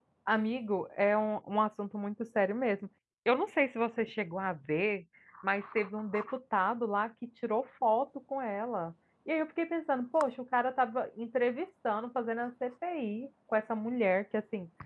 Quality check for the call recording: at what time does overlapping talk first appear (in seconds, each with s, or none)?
none